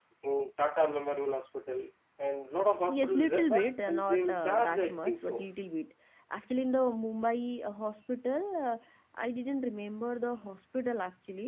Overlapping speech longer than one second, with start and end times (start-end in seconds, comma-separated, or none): 2.9-5.5